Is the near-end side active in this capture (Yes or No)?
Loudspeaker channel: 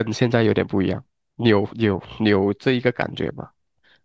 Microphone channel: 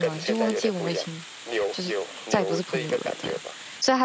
Yes